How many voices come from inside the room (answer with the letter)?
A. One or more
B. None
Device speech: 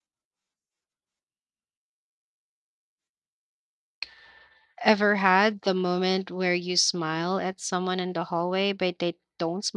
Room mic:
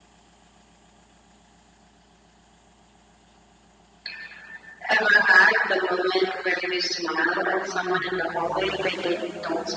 A